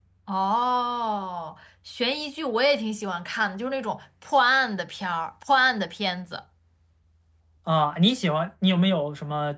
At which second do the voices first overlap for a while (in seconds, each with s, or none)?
none